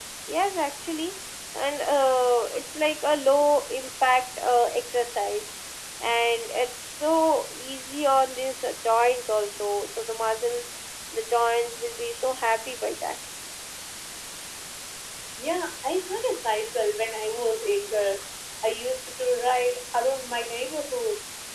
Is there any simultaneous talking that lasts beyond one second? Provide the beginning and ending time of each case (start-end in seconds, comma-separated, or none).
none